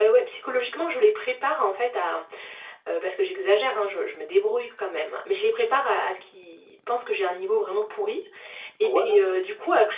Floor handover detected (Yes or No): No